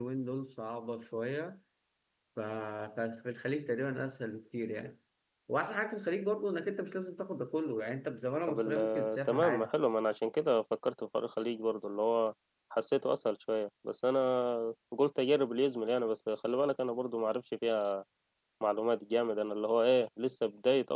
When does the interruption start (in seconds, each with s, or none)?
8.5 s